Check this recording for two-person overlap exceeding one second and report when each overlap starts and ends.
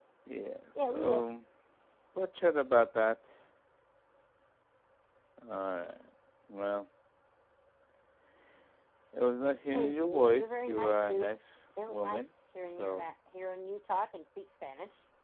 9.7-11.3

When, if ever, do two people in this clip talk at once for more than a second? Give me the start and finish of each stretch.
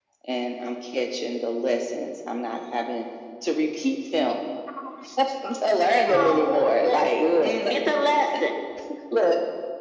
5.9-7.7

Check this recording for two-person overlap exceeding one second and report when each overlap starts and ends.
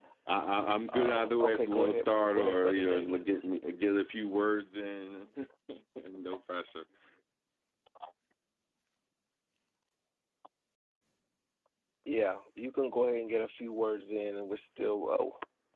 0.9-3.2

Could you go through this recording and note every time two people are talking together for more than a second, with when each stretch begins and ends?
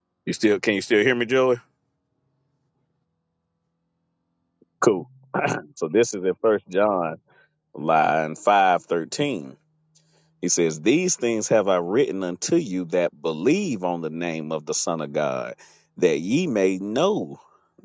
none

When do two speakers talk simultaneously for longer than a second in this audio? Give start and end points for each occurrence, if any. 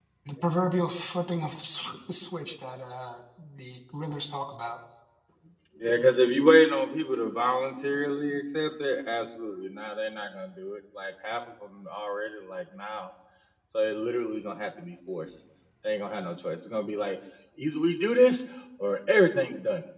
none

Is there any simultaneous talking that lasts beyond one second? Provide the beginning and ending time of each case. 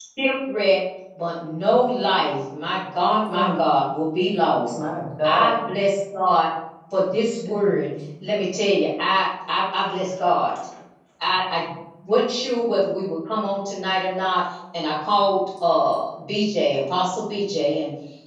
none

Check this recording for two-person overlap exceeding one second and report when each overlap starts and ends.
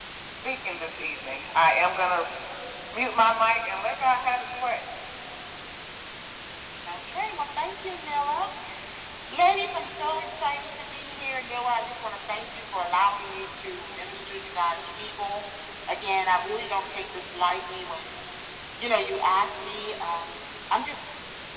none

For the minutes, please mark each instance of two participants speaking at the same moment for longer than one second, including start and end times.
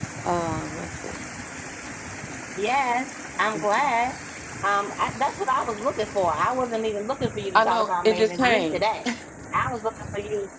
7.6-8.8

